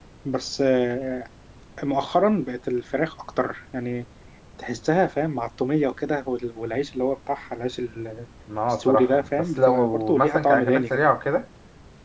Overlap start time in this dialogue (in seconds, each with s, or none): 8.7 s